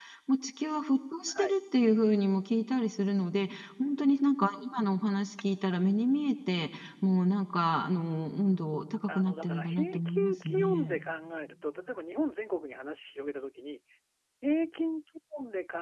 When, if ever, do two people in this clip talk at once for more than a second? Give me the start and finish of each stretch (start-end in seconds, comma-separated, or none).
9.1-11.0